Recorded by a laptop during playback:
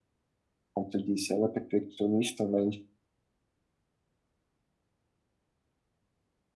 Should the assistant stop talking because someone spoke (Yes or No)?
Yes